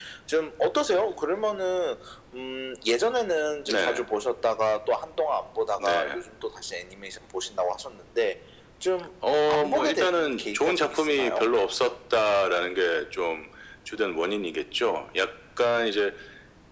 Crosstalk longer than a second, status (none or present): present